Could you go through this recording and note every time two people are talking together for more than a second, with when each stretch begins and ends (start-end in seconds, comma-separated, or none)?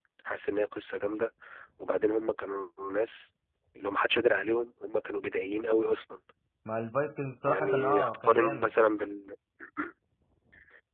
7.4-8.7